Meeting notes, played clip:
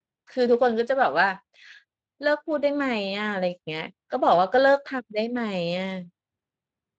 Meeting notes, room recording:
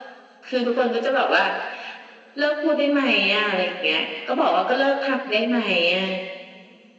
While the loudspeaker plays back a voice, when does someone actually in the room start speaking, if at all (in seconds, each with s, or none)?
none